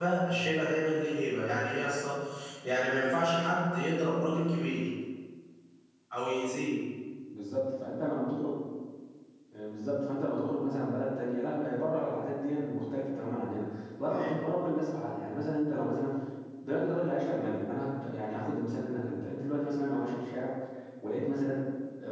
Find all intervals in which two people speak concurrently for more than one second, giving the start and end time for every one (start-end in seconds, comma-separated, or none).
none